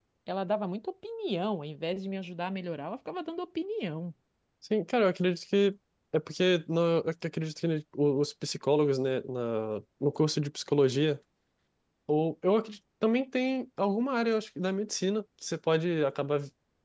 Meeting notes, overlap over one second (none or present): none